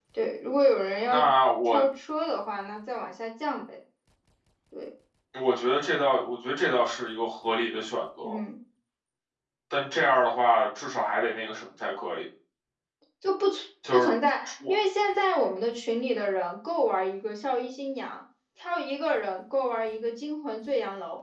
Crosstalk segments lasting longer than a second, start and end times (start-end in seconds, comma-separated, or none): none